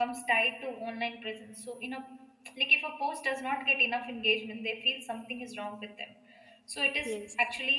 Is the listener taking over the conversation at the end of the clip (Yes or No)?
No